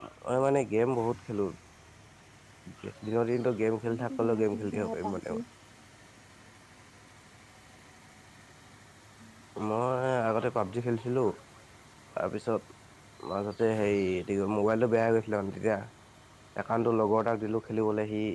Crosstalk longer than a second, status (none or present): present